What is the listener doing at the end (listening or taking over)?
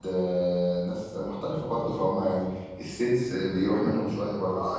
taking over